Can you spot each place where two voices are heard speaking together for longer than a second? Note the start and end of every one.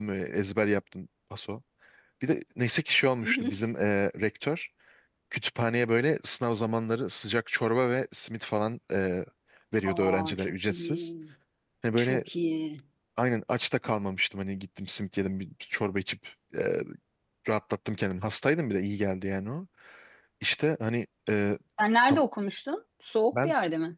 9.8-11.1

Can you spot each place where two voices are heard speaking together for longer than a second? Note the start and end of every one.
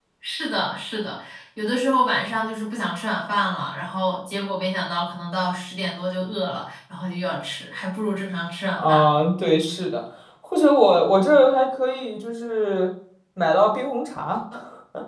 none

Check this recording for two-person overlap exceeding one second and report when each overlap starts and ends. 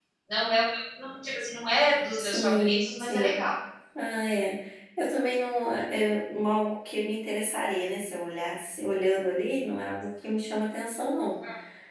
2.2-3.4

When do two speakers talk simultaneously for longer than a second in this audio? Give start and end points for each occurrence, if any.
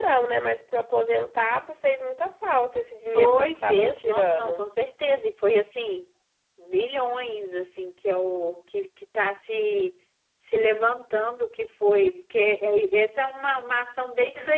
3.1-4.6

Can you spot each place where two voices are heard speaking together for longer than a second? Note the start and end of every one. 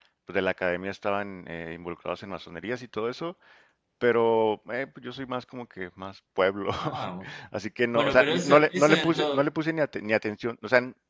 8.0-9.4

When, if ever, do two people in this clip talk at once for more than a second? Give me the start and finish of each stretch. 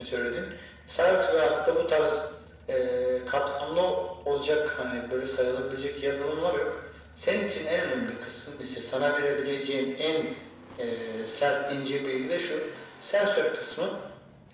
none

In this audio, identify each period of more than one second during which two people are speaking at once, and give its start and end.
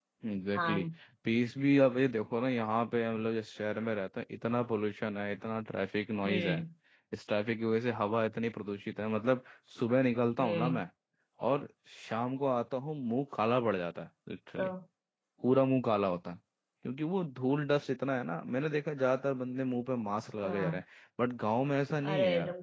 none

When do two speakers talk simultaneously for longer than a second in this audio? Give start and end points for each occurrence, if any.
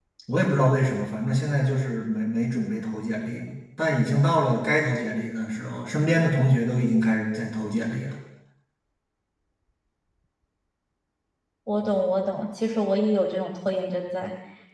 none

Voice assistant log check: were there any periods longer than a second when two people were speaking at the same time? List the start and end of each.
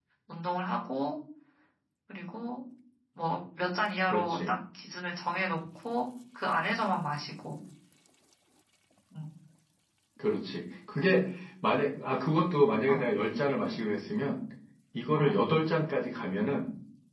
none

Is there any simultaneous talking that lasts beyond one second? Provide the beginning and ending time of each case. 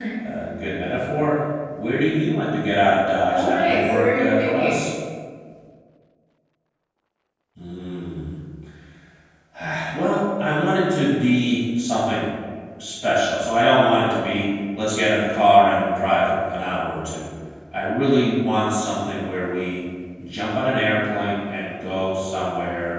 3.3-4.9

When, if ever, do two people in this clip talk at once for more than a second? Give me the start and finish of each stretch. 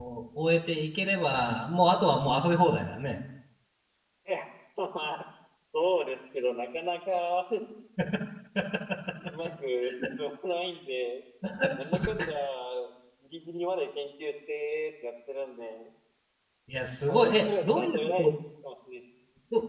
17.1-18.3

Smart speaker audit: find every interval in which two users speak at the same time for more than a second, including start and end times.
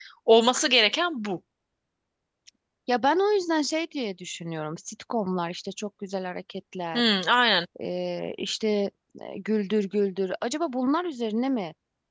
none

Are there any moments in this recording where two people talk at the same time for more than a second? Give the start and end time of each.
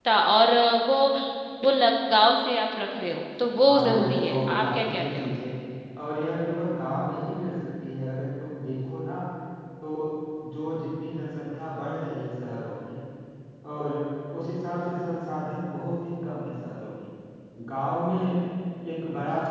3.7-5.3

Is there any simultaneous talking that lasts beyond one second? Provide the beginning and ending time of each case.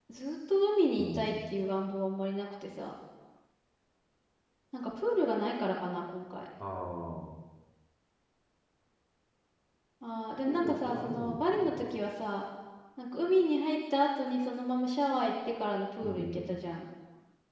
10.4-11.9

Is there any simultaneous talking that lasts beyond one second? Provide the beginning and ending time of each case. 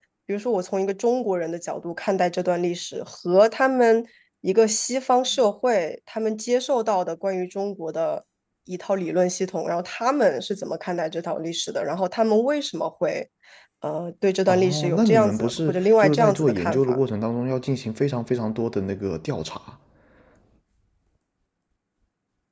14.5-17.0

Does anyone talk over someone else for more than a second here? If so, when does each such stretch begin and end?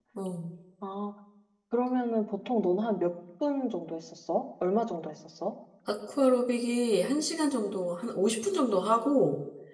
none

